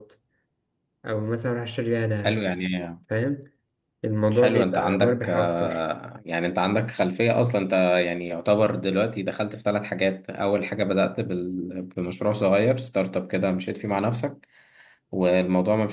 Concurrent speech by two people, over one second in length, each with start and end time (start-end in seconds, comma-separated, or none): 4.3-5.8